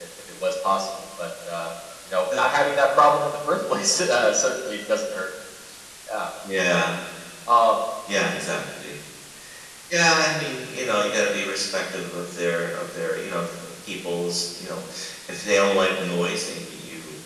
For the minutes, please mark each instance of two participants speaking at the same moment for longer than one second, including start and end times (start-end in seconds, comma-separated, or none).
none